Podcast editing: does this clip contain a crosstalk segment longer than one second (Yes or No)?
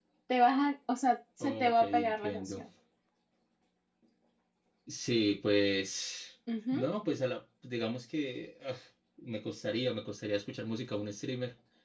Yes